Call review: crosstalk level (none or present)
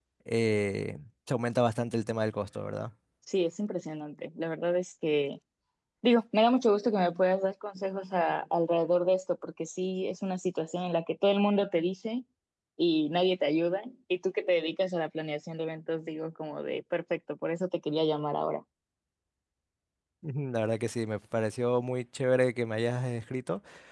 none